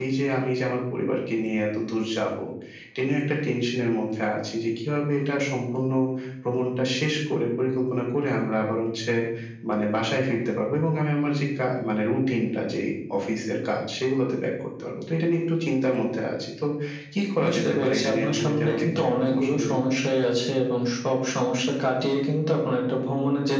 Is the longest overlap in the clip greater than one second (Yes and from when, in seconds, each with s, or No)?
Yes, from 17.4 s